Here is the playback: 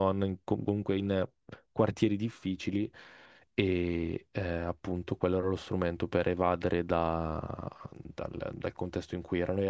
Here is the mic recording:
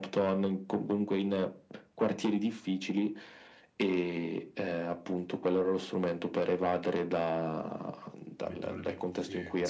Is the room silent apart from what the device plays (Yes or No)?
No